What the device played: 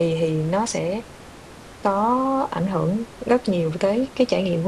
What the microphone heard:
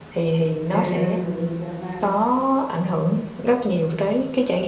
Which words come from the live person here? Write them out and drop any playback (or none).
à dùng Java